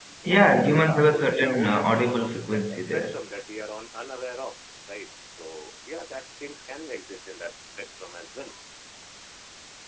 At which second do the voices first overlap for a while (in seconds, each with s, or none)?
0.7 s